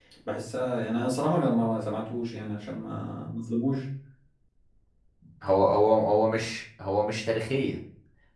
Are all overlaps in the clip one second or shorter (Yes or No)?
Yes